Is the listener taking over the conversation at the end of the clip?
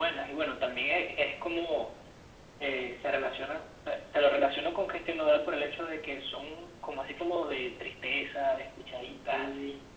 Yes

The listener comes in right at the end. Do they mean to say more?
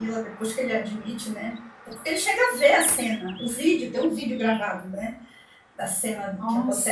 No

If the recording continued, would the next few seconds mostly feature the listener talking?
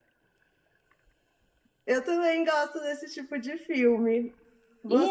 No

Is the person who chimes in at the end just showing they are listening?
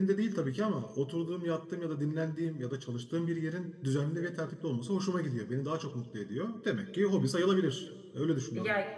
No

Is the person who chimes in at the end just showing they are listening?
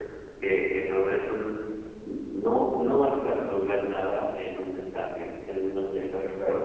Yes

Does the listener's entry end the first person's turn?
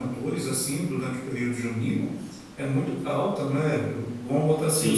No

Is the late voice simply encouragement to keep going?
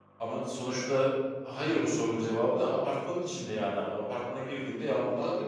No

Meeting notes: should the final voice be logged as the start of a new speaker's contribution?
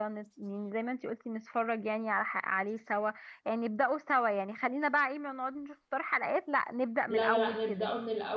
Yes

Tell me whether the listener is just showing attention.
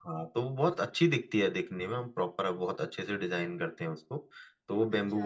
Yes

